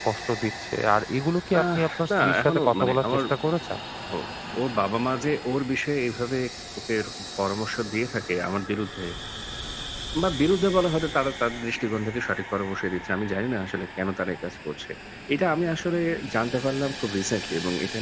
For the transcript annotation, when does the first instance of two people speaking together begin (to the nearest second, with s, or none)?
2 s